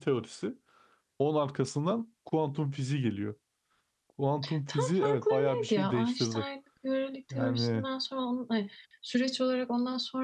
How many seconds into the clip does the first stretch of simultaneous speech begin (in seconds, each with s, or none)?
4.7 s